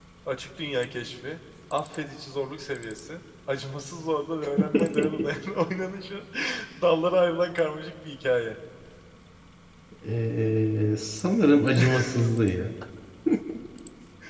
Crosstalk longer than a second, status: none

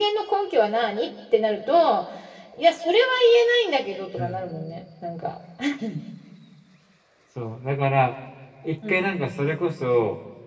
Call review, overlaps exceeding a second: none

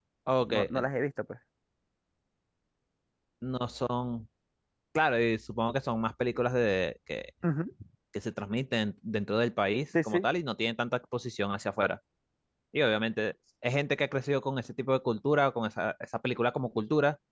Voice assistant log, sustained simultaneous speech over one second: none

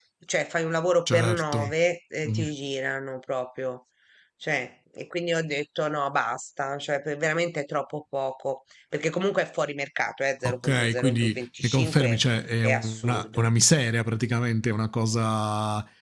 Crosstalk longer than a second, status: present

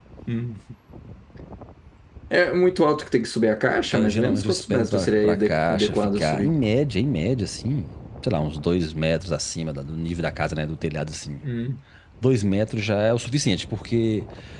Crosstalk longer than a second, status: present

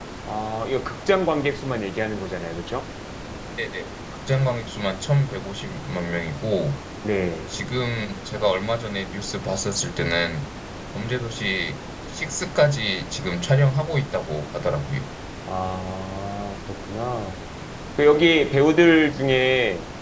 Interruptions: none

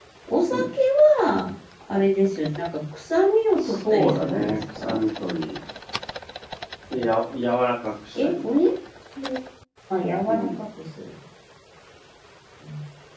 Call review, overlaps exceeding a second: present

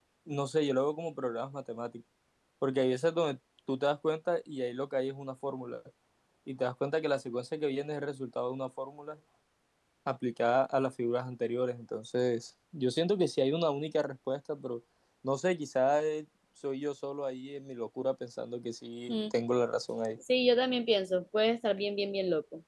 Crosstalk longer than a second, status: none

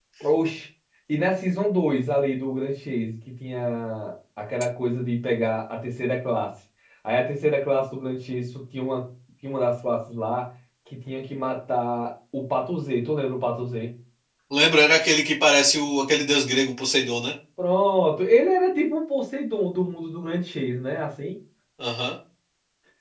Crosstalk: none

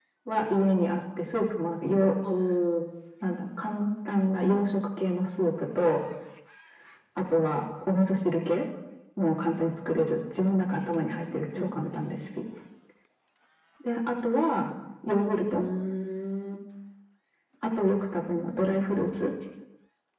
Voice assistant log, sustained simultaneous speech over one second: none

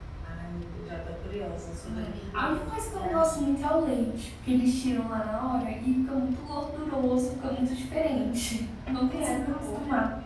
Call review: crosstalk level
present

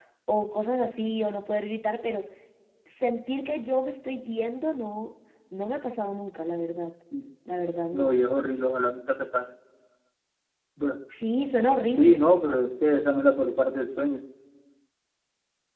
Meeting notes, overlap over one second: none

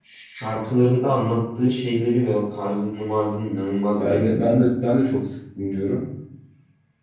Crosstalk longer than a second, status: none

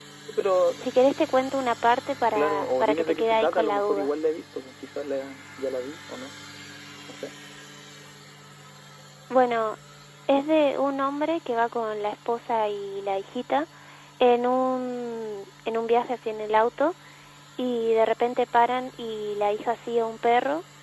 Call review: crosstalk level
present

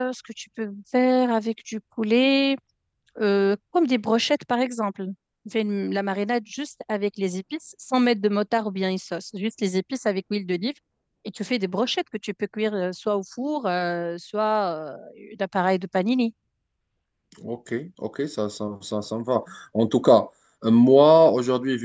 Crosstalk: none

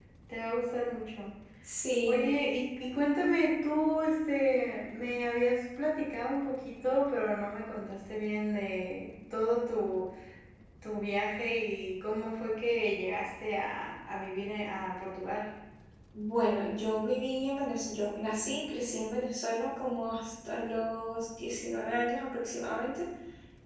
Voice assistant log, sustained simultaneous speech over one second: none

